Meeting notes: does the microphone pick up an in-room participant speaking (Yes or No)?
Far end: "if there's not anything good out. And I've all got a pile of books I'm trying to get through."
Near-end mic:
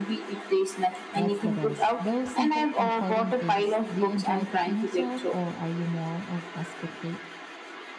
Yes